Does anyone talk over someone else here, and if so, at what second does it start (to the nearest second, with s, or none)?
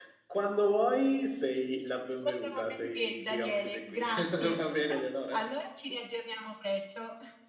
2 s